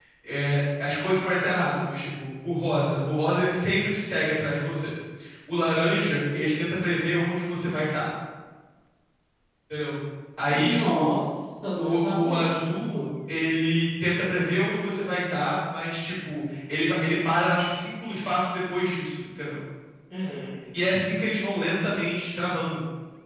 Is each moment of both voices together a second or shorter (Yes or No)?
No